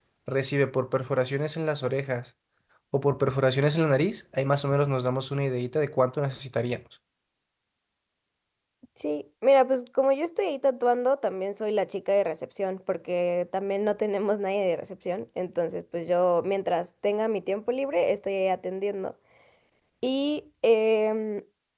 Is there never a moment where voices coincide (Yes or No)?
Yes